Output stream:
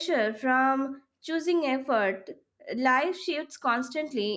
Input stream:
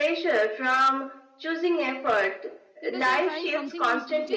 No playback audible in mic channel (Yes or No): No